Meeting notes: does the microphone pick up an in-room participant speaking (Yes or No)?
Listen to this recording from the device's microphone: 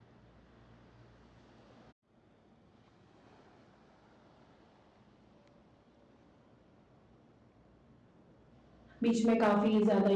Yes